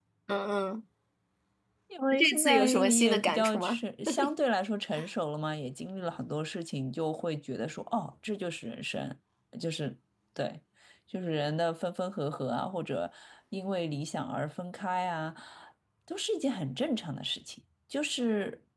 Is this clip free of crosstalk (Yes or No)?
No